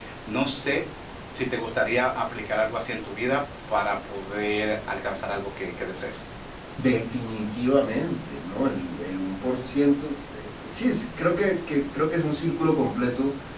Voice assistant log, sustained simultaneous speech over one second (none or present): none